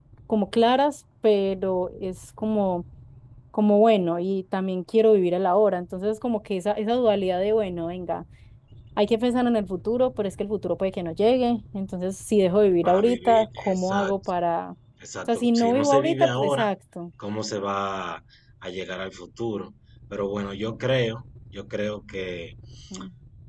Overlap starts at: 12.8 s

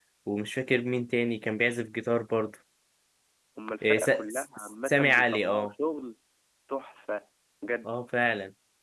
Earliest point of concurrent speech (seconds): 3.8 s

